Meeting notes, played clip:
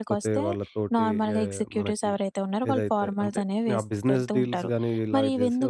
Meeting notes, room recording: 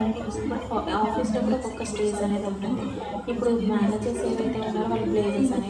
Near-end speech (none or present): present